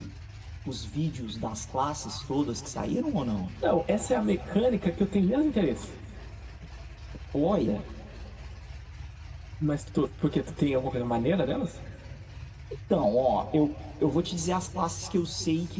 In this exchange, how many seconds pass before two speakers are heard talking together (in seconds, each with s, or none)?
none